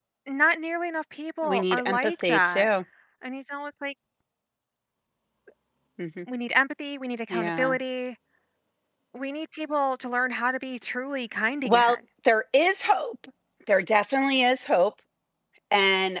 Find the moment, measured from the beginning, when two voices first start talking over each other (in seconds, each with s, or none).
1.4 s